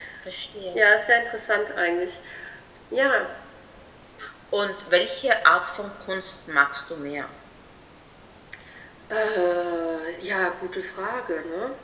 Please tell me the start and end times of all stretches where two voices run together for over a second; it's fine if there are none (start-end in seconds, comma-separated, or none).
none